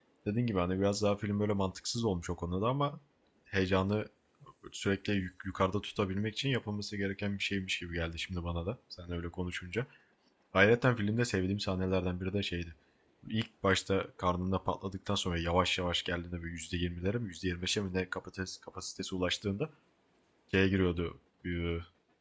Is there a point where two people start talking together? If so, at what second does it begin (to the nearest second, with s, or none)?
none